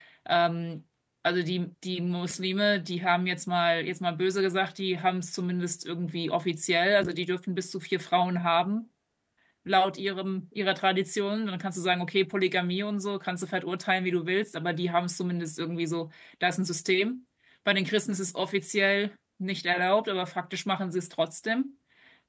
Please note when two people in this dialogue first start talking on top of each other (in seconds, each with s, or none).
none